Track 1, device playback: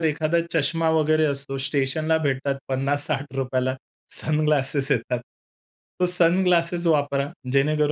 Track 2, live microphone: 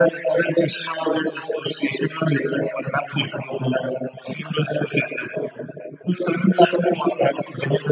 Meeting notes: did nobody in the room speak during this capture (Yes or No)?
Yes